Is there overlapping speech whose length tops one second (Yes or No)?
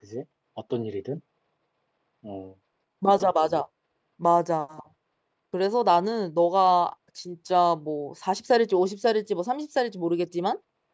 No